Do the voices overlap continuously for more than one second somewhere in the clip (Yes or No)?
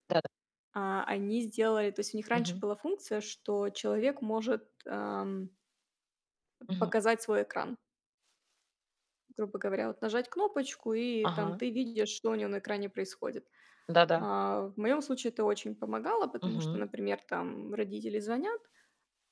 No